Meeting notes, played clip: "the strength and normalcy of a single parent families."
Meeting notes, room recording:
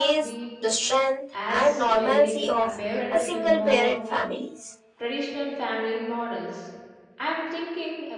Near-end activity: present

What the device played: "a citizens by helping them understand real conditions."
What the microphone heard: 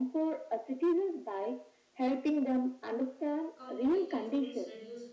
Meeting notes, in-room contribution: present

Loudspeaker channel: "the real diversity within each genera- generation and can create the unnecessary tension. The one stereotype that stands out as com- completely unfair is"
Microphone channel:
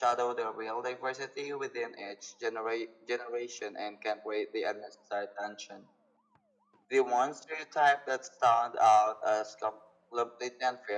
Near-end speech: none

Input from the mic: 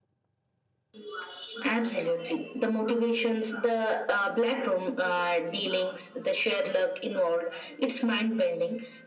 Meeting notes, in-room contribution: none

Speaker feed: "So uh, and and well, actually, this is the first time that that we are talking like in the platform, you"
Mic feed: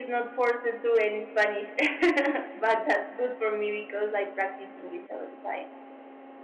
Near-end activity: present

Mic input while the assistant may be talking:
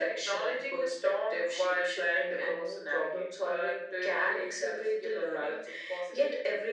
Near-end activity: none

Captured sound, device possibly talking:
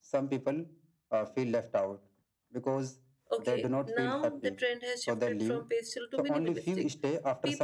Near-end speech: present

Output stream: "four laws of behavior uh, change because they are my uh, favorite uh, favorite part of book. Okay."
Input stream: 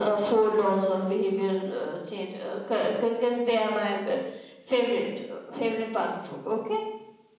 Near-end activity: none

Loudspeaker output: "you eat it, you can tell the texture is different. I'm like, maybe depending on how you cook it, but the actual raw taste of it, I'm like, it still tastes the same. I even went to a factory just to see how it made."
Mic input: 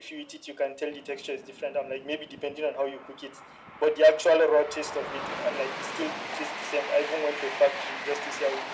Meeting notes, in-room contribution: none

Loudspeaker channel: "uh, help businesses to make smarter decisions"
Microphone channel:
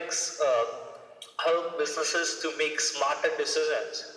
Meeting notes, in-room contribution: none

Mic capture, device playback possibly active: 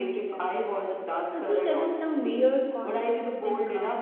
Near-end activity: present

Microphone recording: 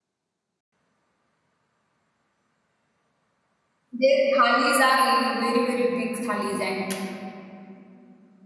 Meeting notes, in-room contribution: present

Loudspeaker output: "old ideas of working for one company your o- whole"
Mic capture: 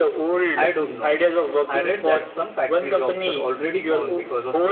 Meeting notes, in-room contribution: present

